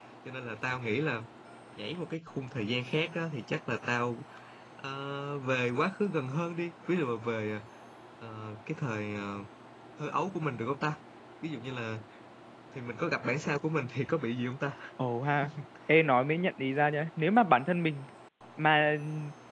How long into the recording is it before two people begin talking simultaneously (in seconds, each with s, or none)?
none